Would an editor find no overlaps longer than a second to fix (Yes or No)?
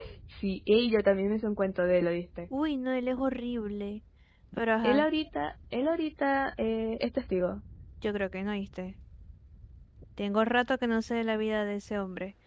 Yes